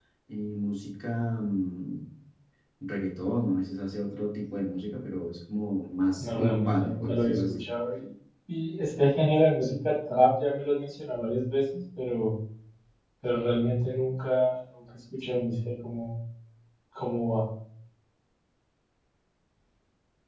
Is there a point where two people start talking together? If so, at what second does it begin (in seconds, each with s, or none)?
6.2 s